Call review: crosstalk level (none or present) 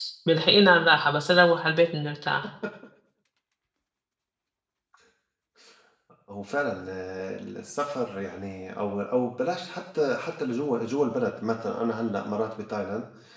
none